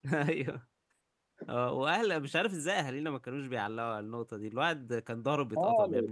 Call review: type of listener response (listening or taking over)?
taking over